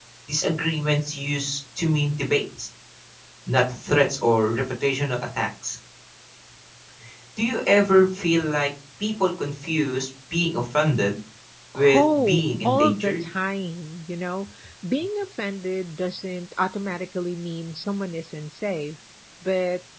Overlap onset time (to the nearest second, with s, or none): 12 s